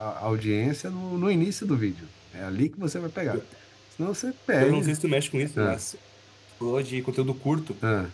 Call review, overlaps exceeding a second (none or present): none